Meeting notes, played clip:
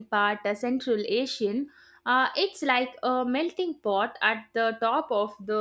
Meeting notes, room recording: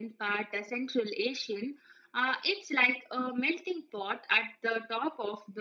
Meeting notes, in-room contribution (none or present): none